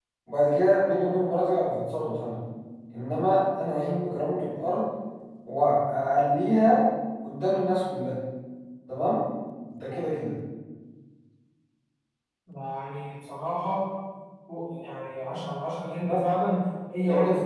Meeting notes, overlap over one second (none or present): none